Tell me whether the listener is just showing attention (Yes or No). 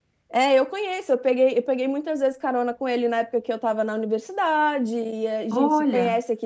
Yes